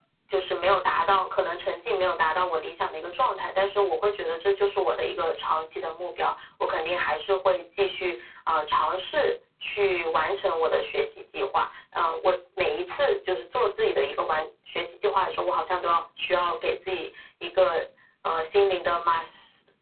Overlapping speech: No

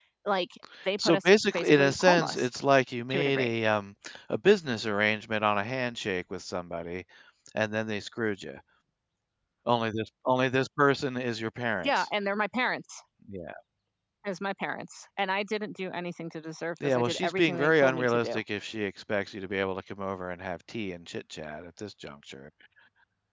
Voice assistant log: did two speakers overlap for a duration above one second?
Yes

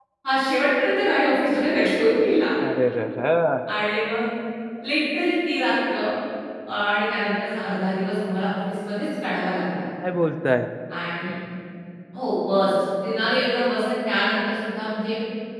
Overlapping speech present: No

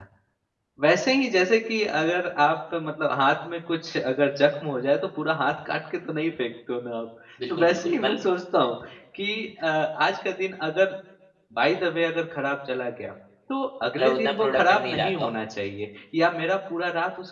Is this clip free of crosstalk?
No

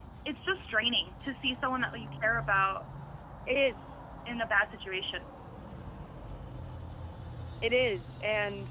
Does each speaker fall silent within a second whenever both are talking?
Yes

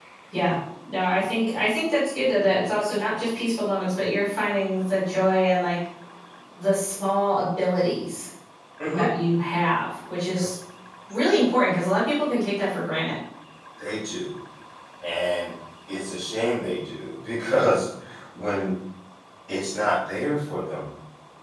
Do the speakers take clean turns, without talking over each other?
Yes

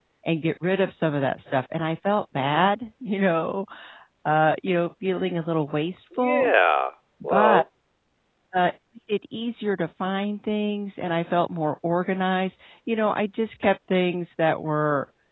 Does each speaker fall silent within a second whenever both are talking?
Yes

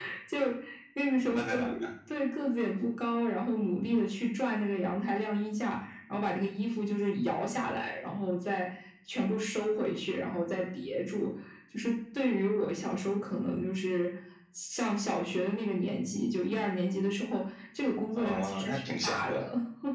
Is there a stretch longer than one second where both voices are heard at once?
Yes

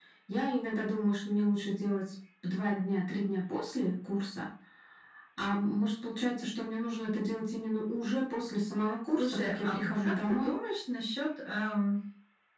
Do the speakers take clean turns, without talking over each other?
No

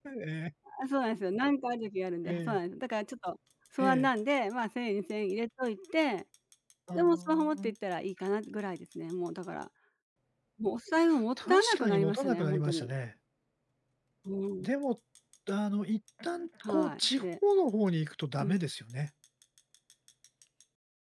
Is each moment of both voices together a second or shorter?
No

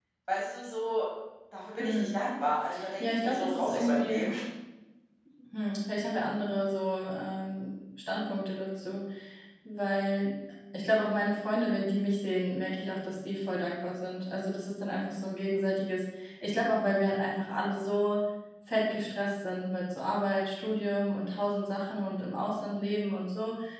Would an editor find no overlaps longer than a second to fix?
No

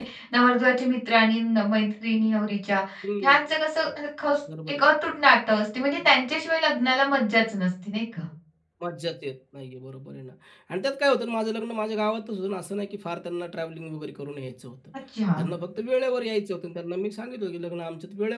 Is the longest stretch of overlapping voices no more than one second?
Yes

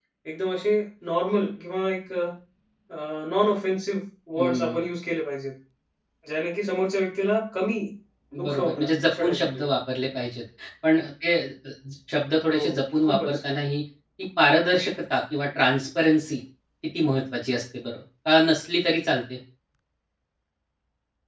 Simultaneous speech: Yes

